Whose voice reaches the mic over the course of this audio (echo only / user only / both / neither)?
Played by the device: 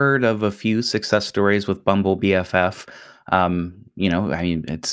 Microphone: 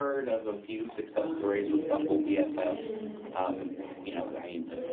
both